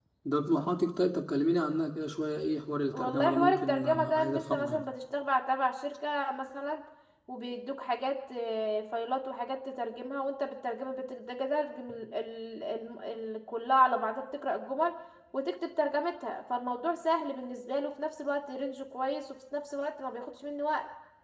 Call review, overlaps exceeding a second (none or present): present